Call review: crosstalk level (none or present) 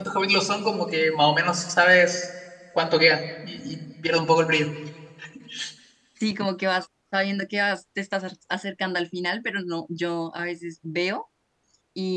none